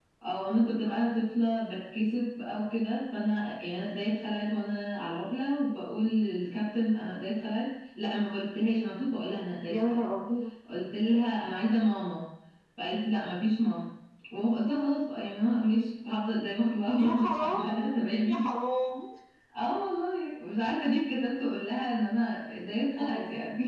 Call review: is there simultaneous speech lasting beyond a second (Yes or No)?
Yes